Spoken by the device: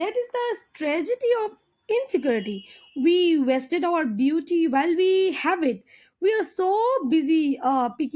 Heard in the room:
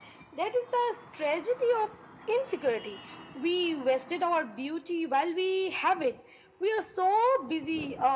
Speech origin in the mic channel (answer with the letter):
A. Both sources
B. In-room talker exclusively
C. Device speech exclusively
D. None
C